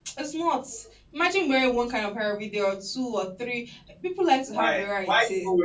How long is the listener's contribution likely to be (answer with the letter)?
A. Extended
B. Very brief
A